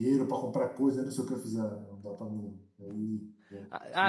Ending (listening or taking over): taking over